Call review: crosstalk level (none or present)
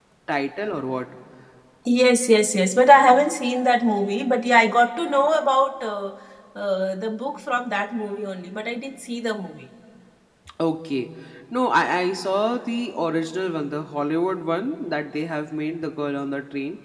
none